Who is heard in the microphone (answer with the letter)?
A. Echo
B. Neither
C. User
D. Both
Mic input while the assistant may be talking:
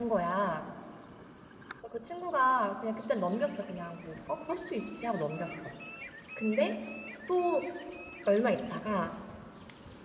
C